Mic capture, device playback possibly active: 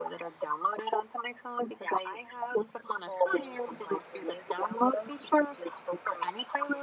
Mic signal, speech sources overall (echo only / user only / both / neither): echo only